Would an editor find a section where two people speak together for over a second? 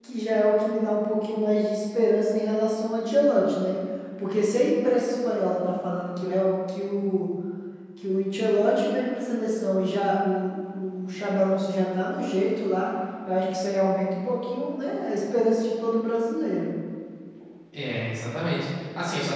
No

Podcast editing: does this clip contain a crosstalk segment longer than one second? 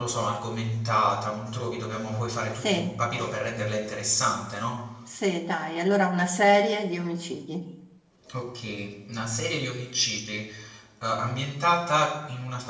No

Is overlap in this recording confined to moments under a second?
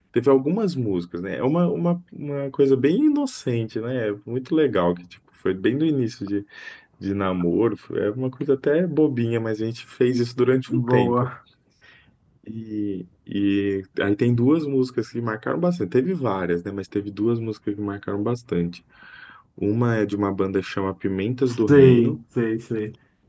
Yes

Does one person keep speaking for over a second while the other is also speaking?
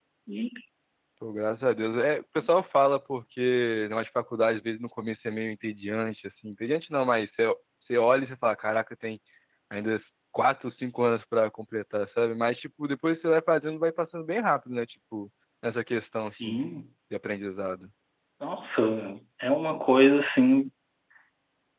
No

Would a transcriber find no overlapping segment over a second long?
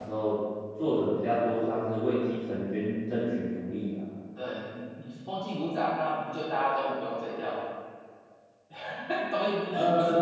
Yes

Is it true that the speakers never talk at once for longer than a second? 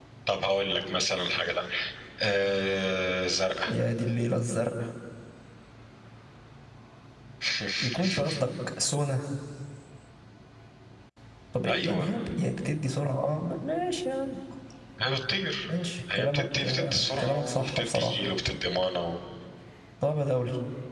No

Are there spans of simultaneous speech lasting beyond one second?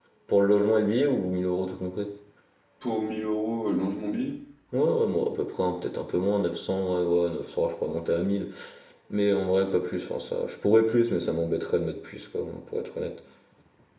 No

